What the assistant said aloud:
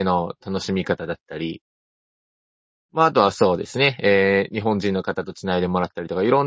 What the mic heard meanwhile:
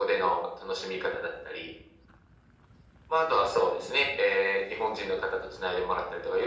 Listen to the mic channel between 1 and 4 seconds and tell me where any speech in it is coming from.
echo only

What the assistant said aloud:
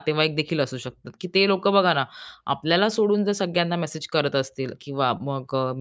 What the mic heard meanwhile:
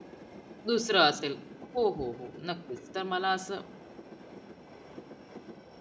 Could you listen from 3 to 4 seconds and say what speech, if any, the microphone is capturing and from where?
user only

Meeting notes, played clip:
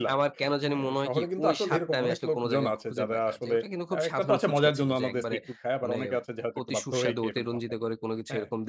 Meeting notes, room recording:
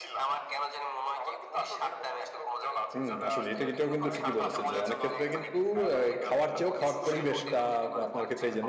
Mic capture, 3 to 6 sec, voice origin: both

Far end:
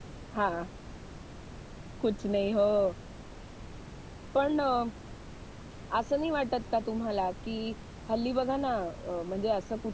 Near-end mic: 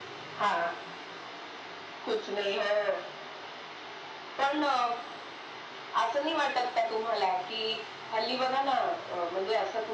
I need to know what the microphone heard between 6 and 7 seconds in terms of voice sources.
echo only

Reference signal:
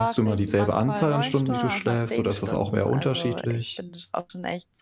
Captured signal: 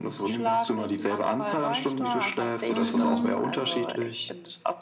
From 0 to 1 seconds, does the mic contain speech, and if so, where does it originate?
echo only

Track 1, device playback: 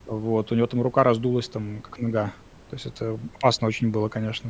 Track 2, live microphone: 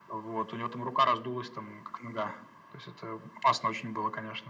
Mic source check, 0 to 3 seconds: echo only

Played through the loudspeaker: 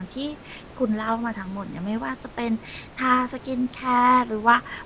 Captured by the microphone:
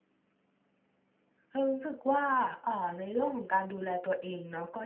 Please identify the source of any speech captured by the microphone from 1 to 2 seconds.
user only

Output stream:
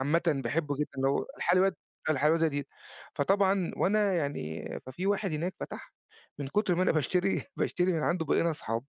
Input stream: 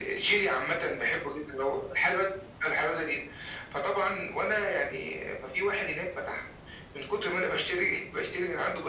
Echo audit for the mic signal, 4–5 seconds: echo only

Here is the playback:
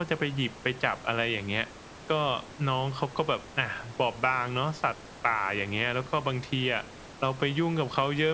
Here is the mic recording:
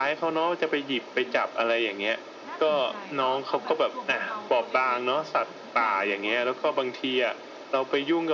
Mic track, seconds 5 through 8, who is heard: both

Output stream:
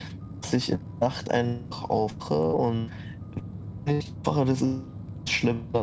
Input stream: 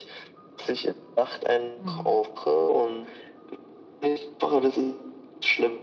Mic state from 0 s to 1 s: echo only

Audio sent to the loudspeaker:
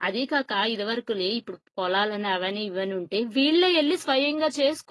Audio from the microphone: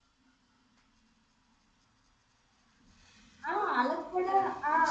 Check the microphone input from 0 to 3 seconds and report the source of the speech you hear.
neither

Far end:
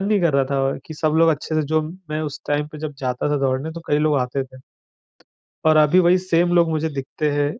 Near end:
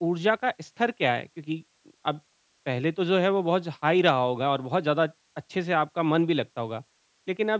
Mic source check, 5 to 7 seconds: user only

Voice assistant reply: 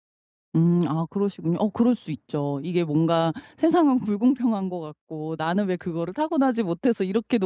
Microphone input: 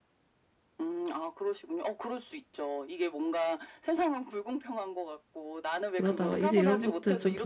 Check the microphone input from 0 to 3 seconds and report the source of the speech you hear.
echo only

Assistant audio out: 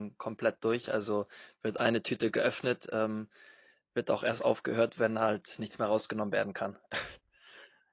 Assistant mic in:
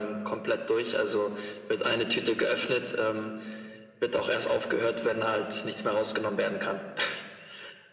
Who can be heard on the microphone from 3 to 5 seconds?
echo only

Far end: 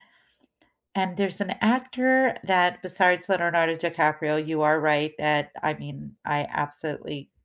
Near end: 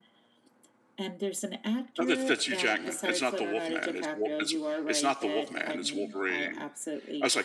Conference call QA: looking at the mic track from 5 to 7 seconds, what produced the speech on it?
both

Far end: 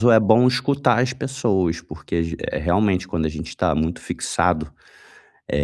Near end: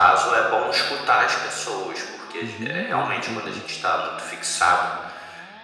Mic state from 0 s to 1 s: echo only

